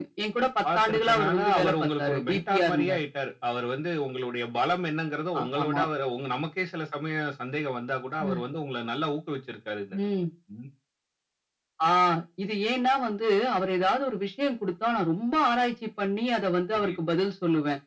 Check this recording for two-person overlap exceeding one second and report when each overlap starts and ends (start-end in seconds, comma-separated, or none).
0.8-3.0